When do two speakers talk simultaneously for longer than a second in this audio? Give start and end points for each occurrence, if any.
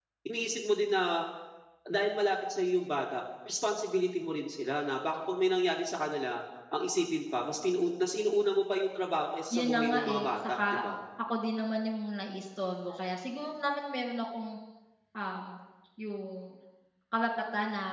9.5-10.8

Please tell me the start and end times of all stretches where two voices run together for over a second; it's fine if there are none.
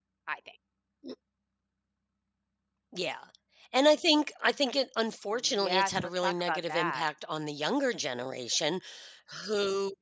5.5-7.1

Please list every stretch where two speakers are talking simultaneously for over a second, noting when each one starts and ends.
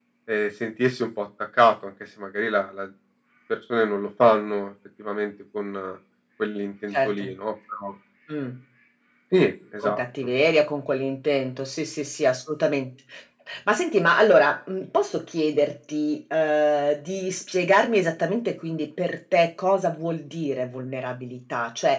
none

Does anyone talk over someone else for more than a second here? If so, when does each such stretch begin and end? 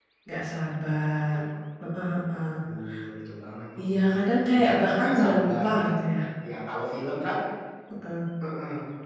3.8-5.8

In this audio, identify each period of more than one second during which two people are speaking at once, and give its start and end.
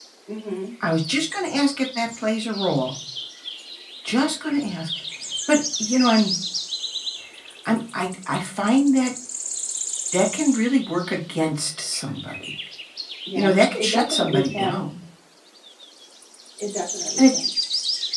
13.4-14.8

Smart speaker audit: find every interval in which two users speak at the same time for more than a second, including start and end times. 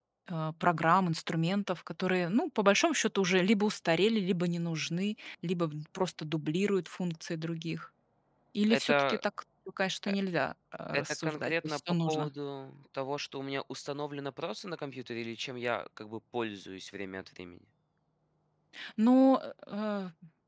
10.9-12.3

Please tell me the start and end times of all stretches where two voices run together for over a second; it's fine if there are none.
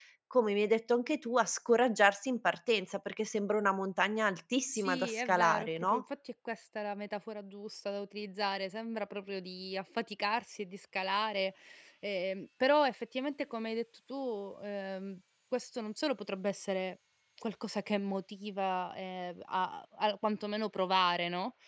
4.7-6.0

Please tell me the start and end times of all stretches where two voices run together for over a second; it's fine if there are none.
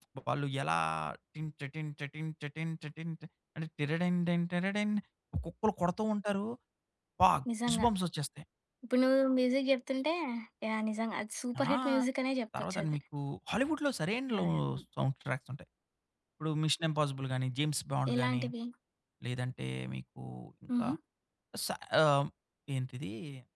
none

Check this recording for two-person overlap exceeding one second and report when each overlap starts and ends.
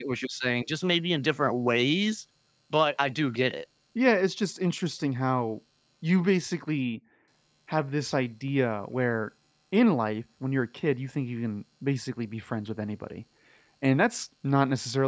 none

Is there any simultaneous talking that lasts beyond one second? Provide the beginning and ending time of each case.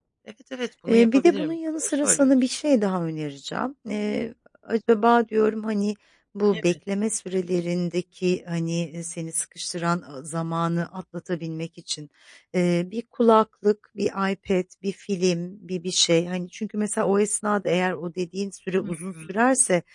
0.9-2.3

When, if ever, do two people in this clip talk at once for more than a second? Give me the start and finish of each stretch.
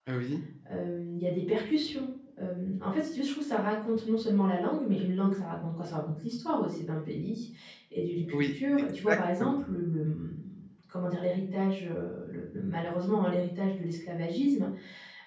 8.3-9.6

